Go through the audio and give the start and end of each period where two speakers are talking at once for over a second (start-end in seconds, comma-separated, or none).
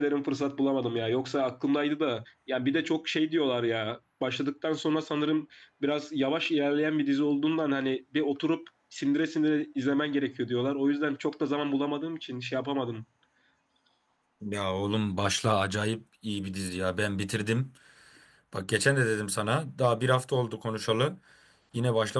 none